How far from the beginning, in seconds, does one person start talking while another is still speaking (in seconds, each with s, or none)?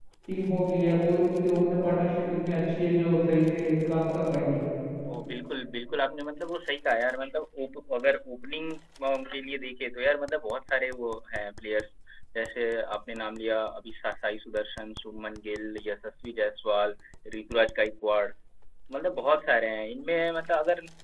none